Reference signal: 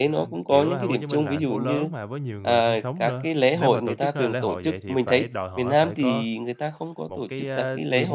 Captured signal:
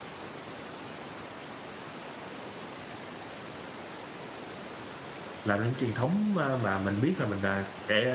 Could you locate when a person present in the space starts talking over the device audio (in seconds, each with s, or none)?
5.4 s